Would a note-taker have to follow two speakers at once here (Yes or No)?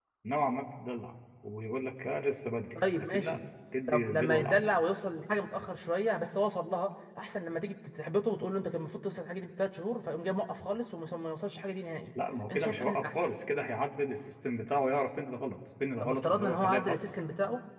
Yes